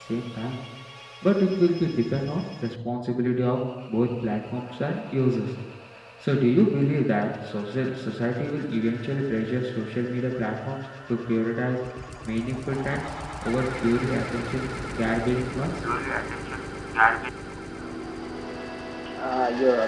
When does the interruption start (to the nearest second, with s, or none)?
none